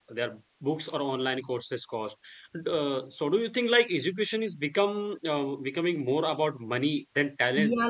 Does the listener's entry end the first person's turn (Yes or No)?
Yes